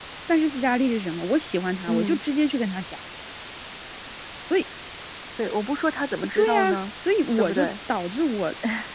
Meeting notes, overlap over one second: none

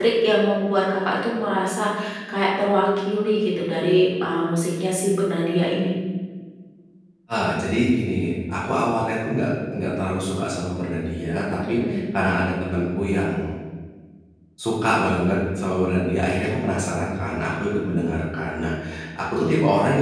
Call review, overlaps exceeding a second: none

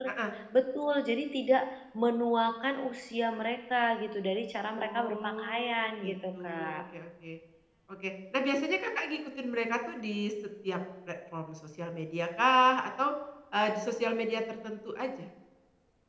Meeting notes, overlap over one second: present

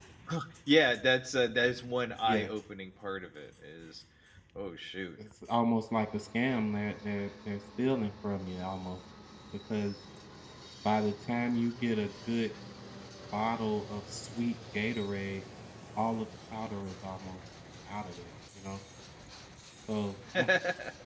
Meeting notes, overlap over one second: none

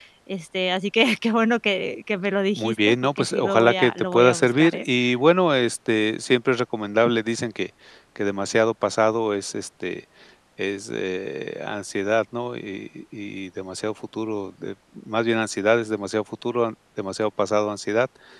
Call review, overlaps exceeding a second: present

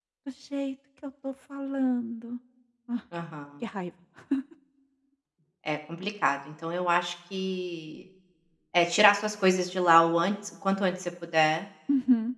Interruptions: none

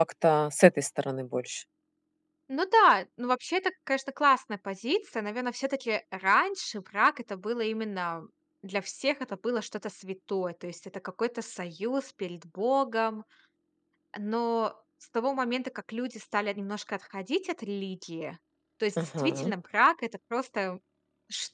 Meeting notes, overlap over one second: none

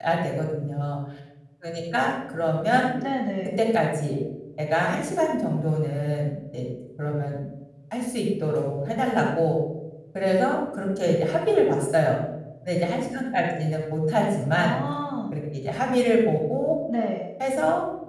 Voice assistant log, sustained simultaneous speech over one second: none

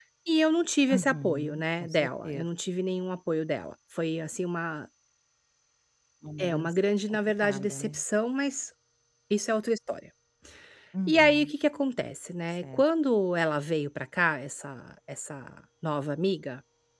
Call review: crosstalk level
present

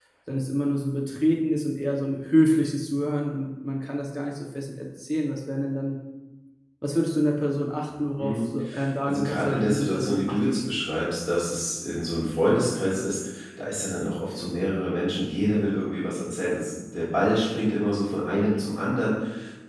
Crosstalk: present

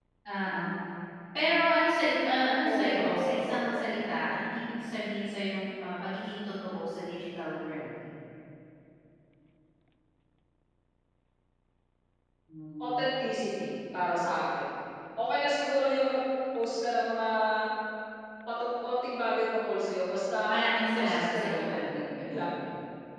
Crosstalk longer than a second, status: present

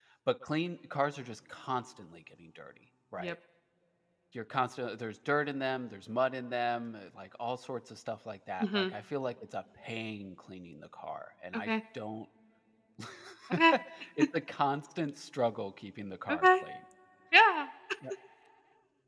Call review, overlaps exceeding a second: none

